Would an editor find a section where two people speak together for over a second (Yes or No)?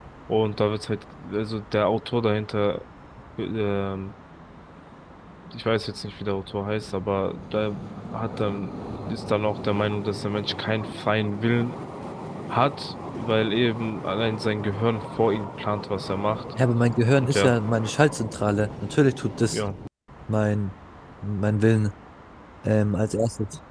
No